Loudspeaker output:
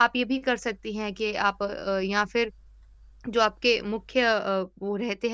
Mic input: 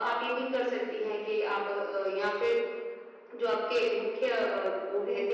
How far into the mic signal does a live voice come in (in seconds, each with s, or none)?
none